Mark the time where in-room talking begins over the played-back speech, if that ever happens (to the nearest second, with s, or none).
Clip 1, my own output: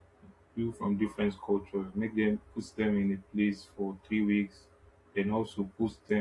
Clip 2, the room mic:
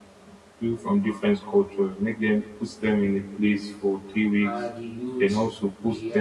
4 s